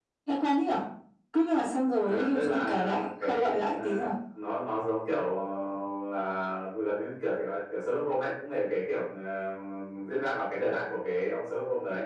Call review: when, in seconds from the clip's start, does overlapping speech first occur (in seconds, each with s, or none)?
2.0 s